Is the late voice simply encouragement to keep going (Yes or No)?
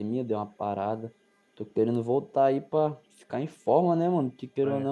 Yes